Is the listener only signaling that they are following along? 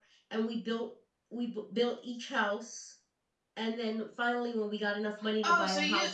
No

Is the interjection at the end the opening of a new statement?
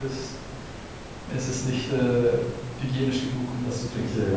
No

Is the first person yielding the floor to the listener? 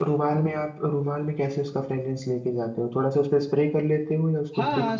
Yes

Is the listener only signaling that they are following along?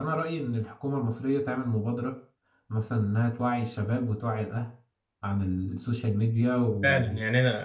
No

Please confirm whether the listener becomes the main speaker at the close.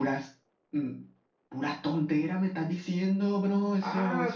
Yes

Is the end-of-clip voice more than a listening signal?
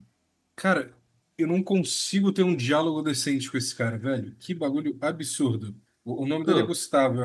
No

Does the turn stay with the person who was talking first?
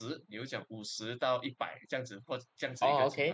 No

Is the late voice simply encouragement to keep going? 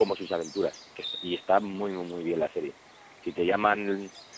Yes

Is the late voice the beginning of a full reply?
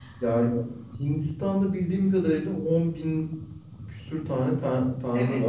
Yes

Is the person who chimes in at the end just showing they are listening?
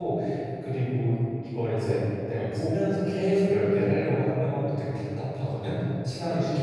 Yes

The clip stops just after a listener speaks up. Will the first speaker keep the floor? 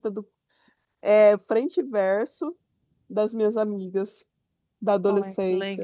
No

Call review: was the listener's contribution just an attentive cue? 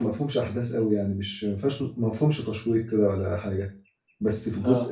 Yes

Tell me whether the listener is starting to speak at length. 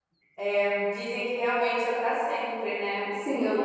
No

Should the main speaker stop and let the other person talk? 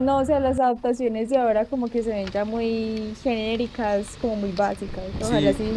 Yes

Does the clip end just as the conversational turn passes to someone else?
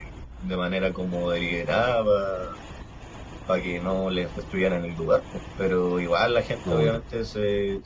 No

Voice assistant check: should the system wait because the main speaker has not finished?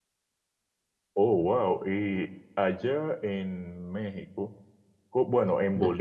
Yes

